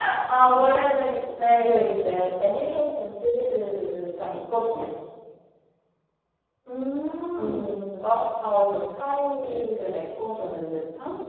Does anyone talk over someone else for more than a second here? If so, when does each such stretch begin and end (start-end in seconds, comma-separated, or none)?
none